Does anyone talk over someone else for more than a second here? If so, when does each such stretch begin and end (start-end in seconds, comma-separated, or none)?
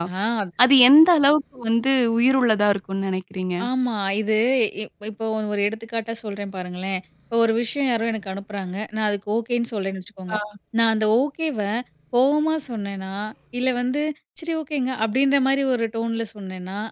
none